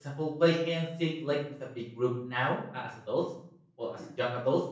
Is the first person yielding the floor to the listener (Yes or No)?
No